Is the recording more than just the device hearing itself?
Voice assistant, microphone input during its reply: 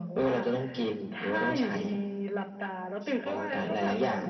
No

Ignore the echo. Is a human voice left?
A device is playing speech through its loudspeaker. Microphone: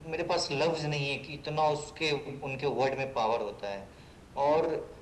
No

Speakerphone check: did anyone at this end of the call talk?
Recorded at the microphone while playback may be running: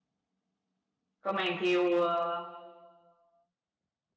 Yes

